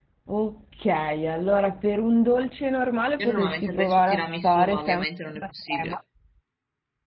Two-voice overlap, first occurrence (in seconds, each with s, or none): 3.2 s